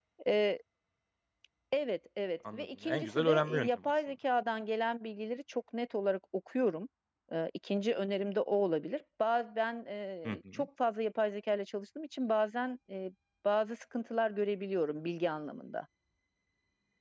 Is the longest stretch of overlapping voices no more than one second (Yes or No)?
No